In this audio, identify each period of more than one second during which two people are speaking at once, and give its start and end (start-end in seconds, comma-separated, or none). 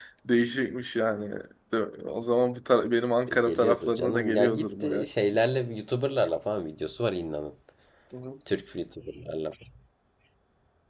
3.3-5.0